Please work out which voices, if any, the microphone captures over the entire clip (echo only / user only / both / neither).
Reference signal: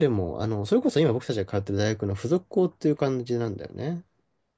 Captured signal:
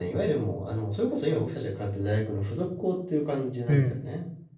both